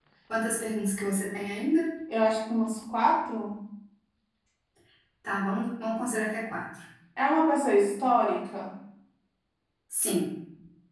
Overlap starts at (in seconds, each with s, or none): none